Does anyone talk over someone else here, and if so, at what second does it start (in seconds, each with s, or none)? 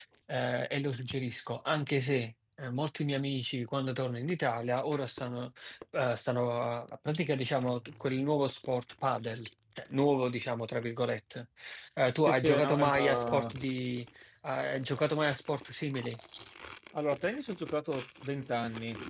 12.2 s